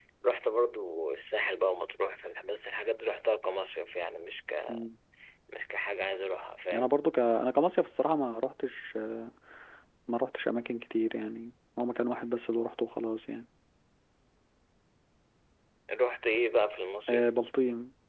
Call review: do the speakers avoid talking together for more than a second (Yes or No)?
Yes